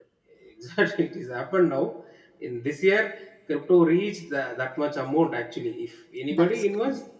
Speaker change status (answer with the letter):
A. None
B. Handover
A